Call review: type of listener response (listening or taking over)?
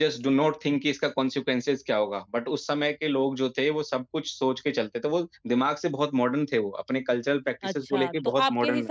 taking over